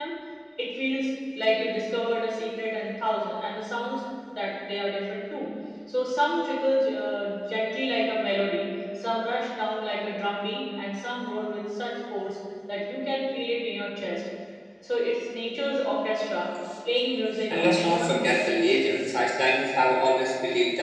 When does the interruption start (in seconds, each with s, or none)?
17.5 s